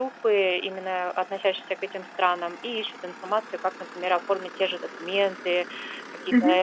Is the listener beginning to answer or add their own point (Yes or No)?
No